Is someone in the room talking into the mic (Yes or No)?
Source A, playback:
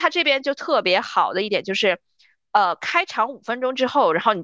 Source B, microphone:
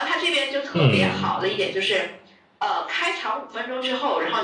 Yes